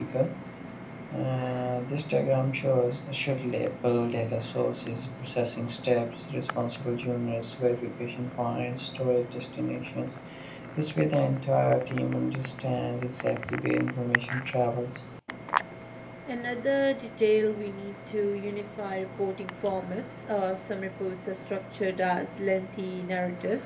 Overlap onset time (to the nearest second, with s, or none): none